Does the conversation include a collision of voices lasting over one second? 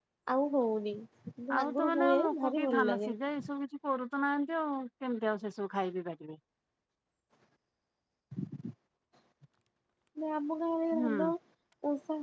Yes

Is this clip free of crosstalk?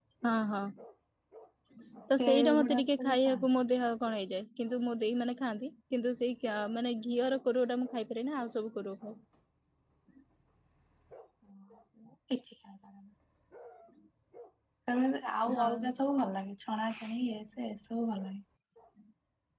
No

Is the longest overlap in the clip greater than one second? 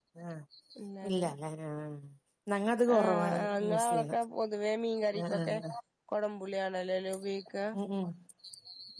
Yes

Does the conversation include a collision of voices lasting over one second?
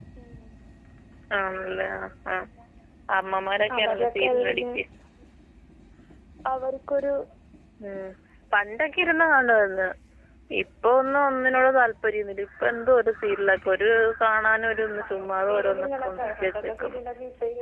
Yes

